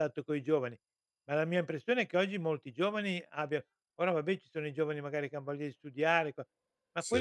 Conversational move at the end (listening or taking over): listening